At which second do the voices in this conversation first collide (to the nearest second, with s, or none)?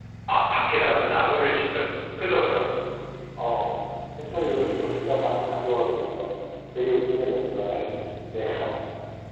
none